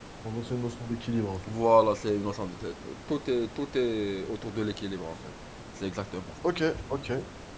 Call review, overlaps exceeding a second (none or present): none